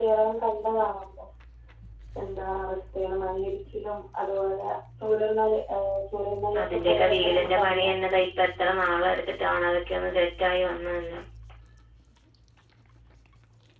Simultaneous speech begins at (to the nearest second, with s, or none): 7 s